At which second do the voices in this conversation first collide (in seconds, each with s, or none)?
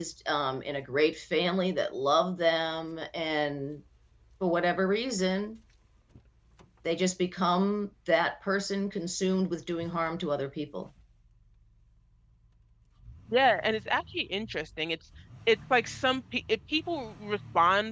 none